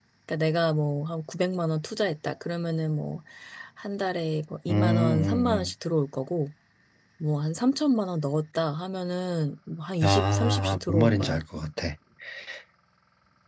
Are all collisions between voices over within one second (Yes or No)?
No